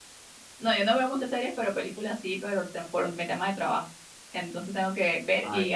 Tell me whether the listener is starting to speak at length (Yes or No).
No